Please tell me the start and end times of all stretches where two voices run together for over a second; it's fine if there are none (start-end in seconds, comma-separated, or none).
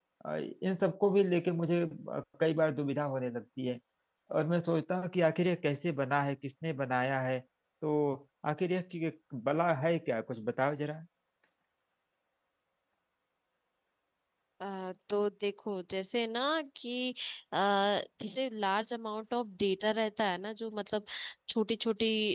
none